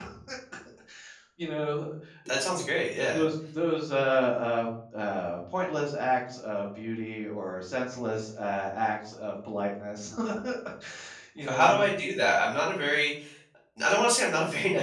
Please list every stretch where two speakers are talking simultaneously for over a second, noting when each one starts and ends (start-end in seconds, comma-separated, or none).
none